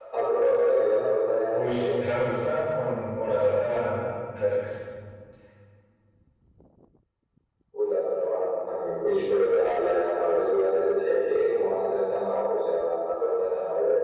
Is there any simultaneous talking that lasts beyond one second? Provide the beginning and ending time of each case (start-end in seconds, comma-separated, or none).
none